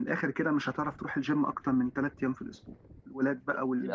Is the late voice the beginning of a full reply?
No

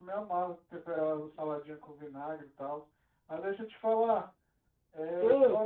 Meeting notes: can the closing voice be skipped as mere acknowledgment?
Yes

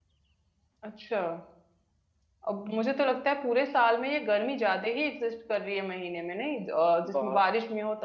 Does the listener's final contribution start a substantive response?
No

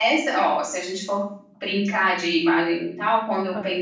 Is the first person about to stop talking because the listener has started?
No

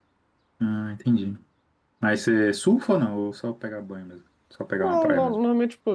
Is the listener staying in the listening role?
No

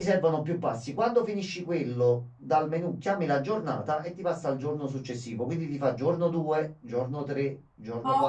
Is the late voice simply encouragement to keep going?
No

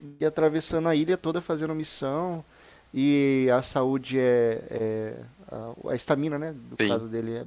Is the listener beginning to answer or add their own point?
No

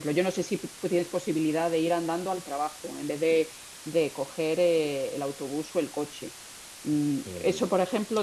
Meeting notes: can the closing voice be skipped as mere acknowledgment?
Yes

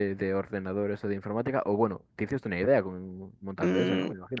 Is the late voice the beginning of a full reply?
Yes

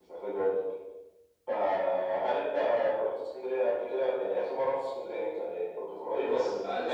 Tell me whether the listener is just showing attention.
No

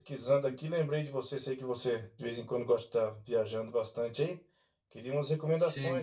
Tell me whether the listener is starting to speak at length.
No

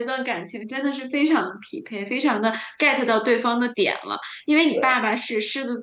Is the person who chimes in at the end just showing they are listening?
Yes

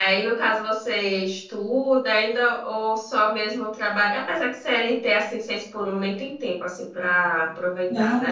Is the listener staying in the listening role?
No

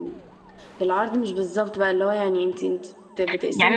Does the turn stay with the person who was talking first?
No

